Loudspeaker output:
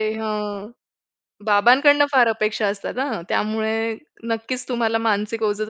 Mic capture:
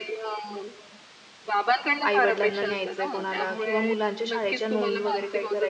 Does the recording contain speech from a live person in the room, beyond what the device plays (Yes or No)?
Yes